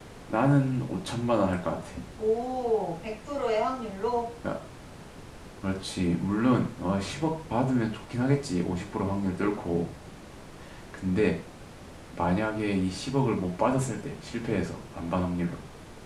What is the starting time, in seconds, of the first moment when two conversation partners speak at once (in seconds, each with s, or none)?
none